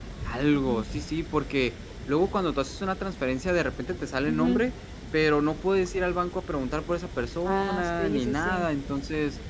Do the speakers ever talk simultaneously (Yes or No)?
Yes